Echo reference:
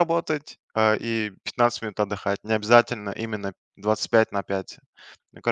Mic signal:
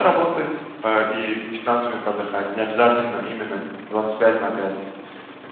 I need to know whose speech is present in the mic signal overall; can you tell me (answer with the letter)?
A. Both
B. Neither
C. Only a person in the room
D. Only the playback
D